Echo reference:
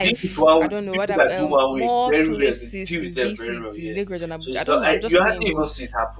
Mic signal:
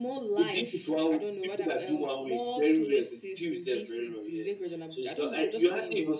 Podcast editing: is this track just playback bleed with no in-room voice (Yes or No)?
Yes